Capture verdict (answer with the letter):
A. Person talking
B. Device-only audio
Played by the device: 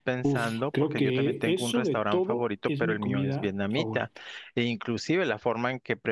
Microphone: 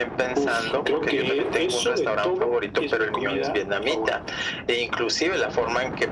B